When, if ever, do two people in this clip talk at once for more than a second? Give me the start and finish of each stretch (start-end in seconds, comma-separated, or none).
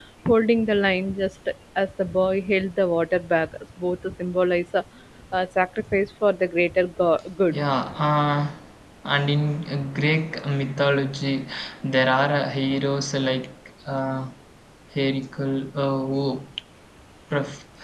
none